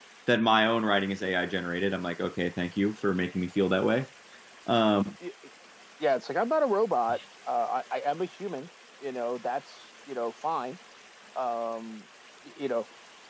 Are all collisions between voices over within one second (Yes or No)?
Yes